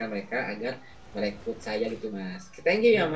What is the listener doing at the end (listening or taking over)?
taking over